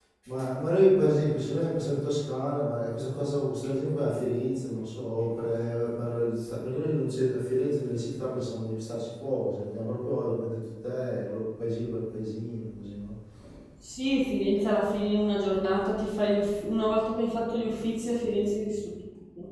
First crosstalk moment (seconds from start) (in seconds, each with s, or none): none